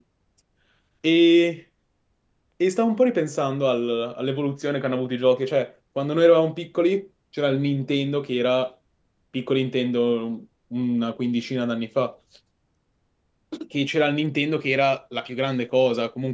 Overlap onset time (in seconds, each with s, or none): none